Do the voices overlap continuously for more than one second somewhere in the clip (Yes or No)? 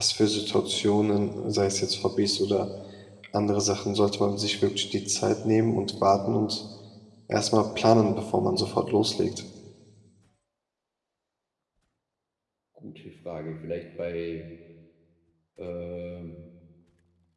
No